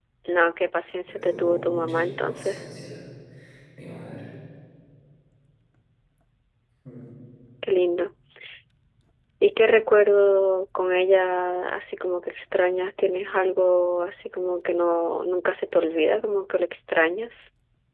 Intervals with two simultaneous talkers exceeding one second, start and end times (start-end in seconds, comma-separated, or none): 1.1-2.6